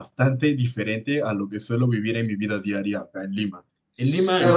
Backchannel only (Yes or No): Yes